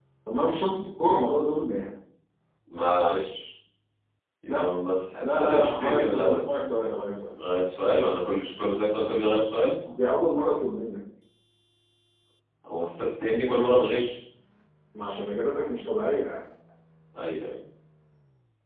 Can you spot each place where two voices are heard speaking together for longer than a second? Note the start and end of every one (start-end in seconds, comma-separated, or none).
5.2-6.4